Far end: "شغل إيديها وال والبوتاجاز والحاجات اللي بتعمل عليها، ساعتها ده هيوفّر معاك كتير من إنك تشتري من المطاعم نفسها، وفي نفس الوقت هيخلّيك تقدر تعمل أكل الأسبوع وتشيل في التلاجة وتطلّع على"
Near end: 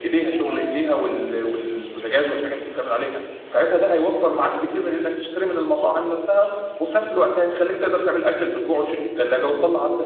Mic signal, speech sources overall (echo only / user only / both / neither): echo only